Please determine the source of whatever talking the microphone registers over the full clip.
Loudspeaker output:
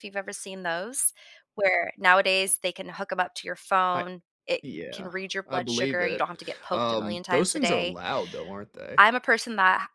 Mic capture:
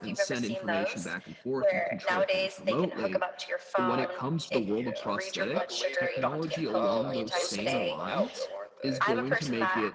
both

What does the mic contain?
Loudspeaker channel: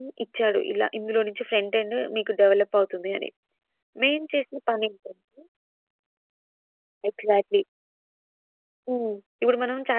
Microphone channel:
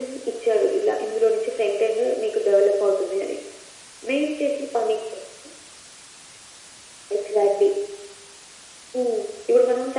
echo only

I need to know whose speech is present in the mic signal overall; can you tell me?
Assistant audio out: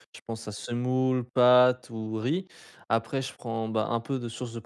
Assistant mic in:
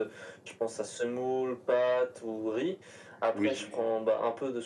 both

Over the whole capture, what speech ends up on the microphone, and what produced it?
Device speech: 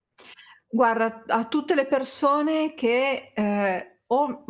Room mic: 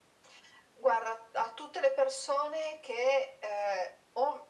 echo only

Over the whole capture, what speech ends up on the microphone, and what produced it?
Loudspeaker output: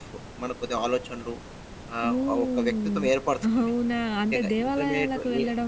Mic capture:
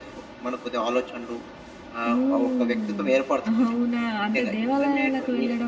echo only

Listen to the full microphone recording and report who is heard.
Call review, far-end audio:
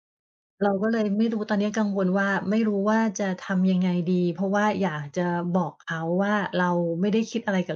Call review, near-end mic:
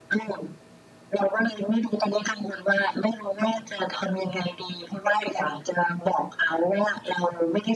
echo only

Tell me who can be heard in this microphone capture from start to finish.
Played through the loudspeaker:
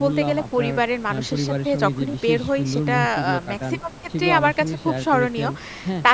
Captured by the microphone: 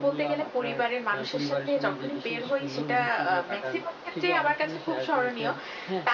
echo only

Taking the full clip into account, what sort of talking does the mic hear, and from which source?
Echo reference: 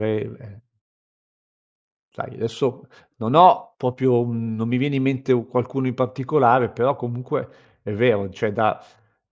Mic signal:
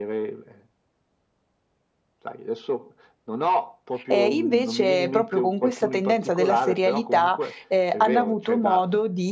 both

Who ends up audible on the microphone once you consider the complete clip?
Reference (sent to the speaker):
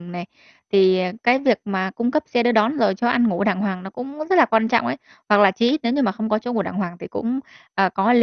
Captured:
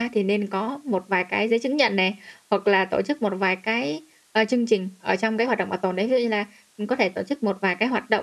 user only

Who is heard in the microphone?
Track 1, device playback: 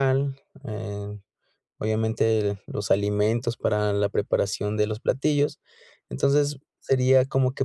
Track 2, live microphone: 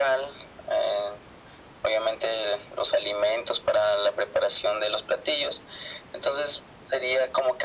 echo only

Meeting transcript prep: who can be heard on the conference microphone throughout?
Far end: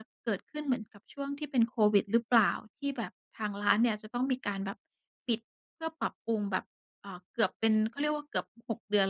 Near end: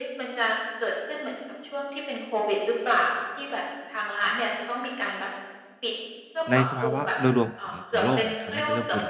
both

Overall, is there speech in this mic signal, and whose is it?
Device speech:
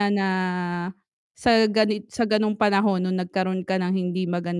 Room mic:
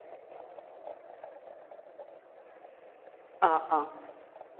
user only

